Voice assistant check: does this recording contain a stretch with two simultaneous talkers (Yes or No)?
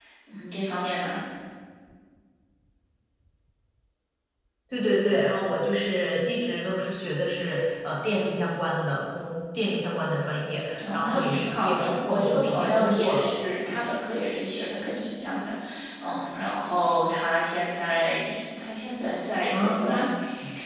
Yes